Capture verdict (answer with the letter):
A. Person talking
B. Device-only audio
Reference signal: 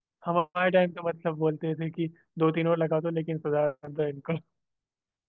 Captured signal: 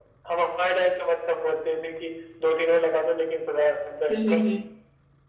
A